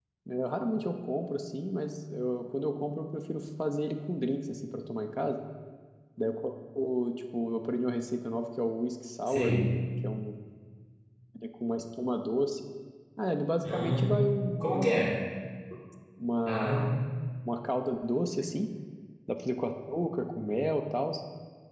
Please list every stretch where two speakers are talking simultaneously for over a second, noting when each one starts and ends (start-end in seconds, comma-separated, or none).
none